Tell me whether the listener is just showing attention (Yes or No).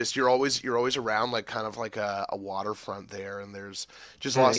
No